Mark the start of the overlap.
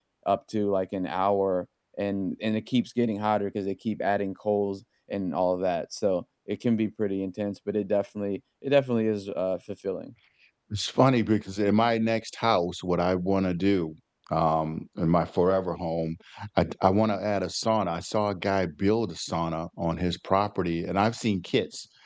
none

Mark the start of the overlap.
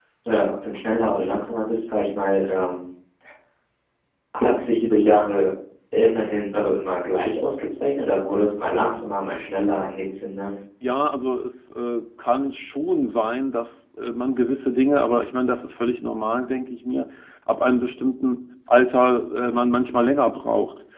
none

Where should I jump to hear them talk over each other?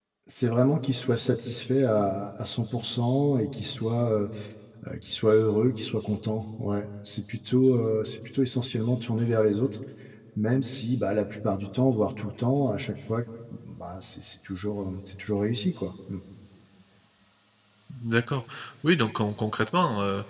none

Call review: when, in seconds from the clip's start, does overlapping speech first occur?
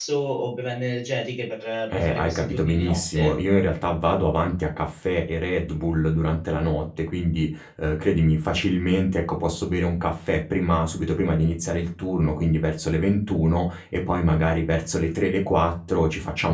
1.9 s

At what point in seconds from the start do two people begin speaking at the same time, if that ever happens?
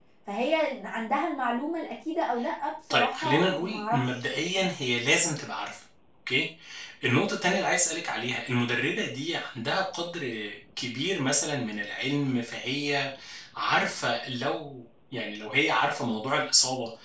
2.9 s

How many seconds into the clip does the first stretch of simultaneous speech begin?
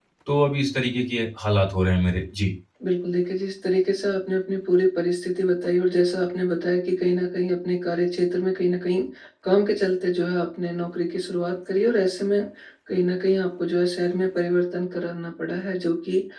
none

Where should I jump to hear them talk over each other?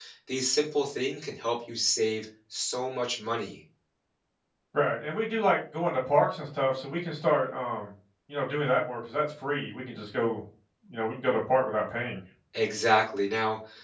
none

